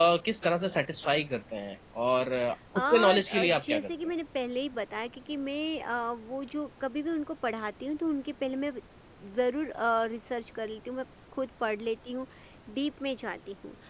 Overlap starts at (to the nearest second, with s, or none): 3 s